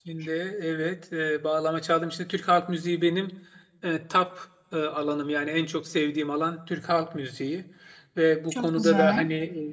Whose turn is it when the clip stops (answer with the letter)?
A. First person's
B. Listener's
A